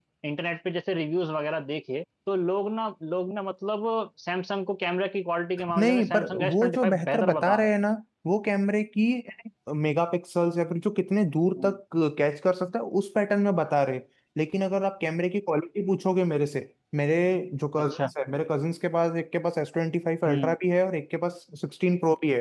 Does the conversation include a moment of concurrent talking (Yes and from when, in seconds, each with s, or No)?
Yes, from 5.8 s